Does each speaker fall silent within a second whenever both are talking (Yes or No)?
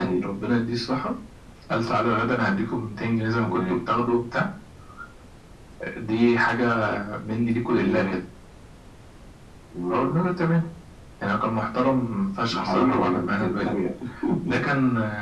No